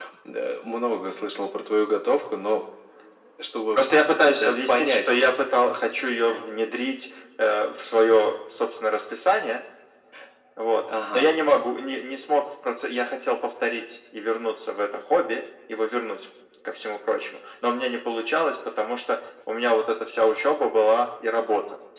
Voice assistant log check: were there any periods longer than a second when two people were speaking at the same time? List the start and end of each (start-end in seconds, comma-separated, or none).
3.7-5.1